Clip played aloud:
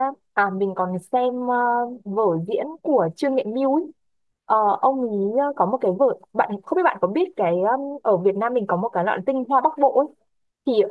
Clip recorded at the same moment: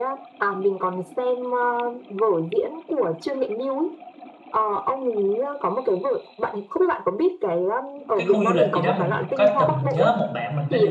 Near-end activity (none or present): present